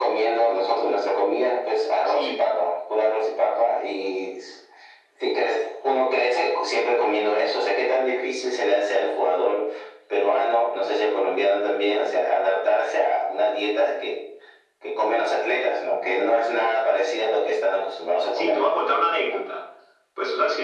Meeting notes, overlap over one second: none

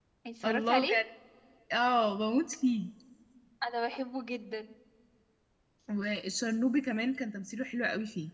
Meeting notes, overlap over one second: none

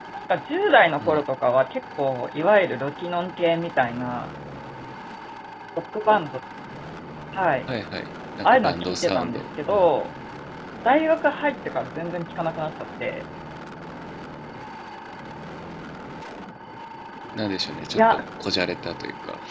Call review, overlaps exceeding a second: present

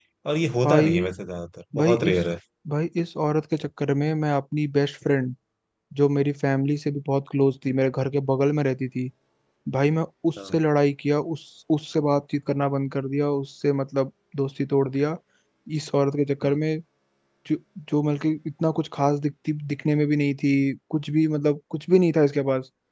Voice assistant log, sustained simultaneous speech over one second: none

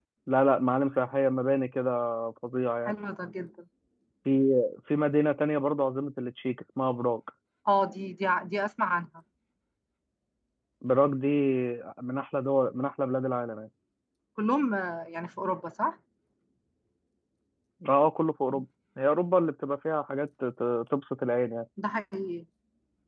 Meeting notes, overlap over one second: none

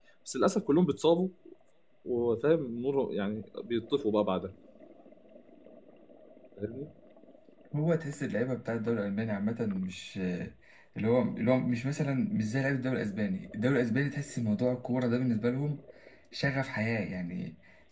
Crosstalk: none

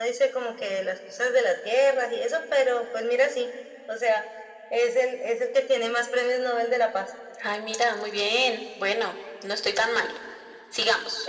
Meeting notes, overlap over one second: none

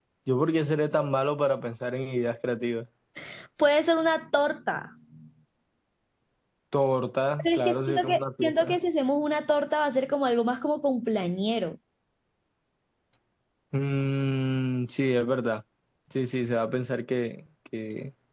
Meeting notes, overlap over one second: present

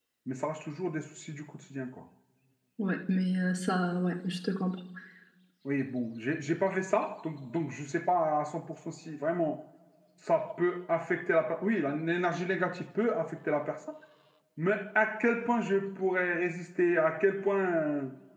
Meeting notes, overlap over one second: none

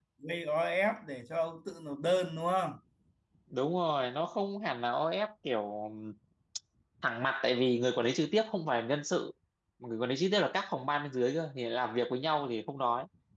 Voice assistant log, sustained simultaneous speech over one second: none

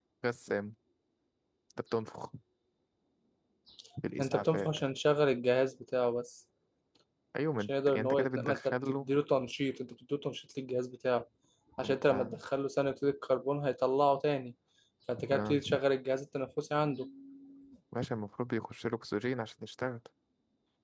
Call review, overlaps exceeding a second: present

